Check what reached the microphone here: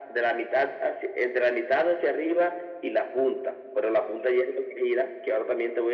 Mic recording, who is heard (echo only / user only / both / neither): echo only